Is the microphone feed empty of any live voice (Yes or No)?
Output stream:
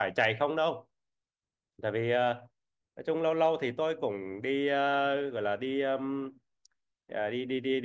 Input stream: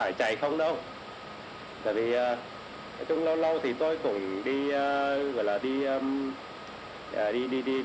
Yes